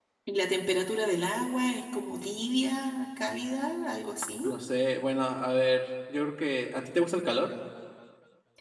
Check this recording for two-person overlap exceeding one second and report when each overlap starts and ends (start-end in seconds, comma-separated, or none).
none